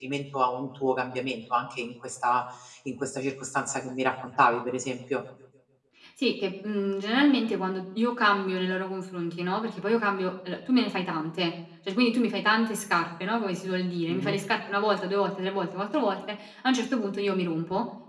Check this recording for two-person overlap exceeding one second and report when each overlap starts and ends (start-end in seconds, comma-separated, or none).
none